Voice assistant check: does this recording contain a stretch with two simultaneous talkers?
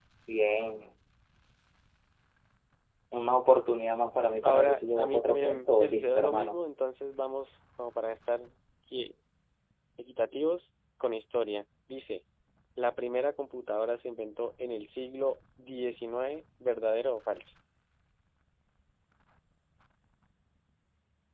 Yes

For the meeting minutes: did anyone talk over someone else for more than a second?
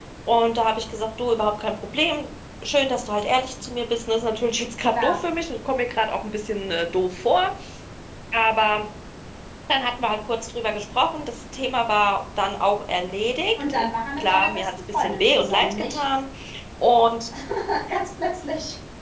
Yes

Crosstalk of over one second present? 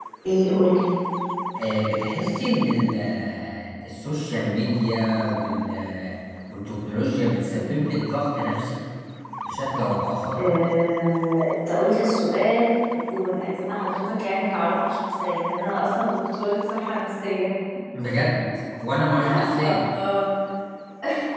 No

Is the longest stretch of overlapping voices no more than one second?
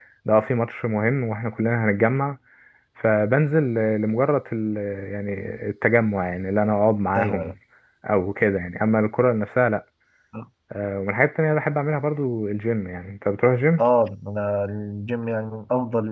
Yes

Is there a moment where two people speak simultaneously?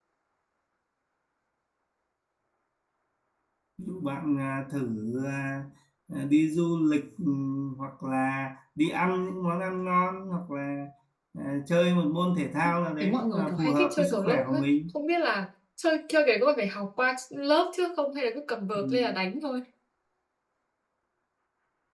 Yes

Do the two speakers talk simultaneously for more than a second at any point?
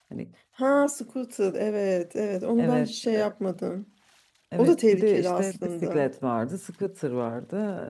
Yes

